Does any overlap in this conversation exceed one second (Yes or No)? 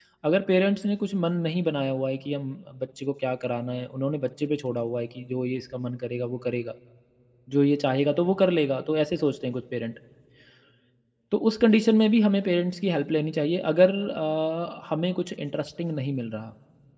No